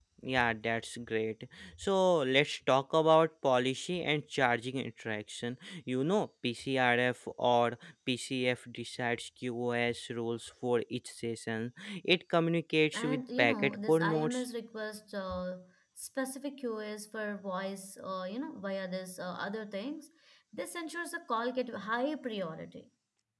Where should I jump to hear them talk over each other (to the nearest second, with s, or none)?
13 s